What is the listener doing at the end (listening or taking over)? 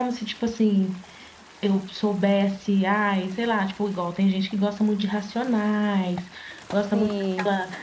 listening